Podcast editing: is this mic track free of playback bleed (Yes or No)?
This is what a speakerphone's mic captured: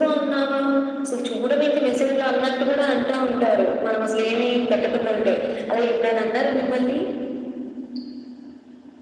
No